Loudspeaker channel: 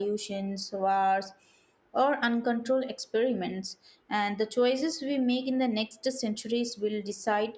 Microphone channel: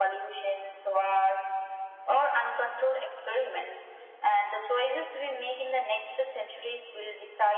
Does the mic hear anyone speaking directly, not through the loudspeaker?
No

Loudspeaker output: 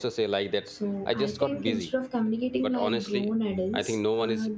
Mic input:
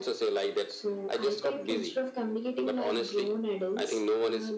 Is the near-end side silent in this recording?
Yes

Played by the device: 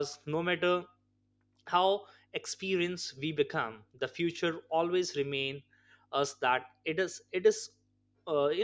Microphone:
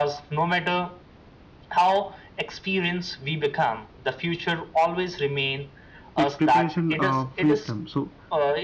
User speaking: Yes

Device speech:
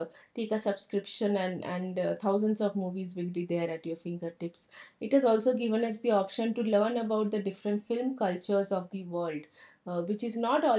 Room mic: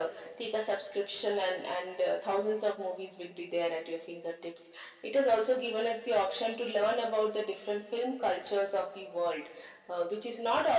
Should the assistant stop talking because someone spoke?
No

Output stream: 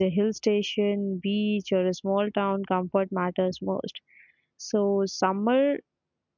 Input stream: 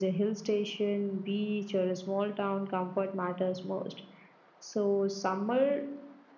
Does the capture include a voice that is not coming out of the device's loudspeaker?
No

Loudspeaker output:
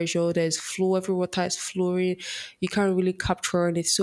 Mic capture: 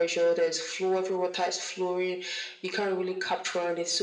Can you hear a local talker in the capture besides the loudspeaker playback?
No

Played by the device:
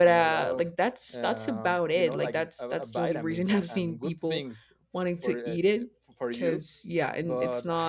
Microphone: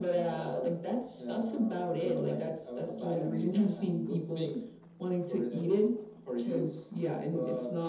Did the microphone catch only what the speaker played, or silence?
Yes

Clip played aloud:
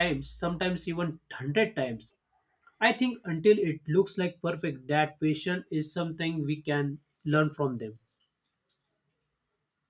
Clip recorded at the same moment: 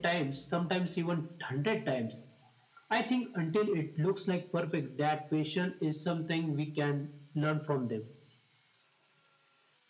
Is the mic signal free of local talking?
Yes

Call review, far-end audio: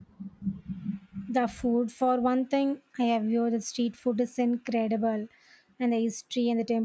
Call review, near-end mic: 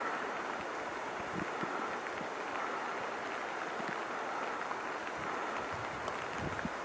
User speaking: No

